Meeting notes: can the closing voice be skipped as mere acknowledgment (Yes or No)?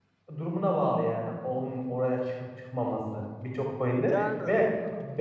Yes